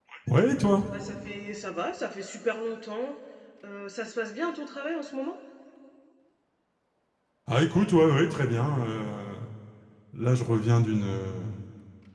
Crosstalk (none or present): none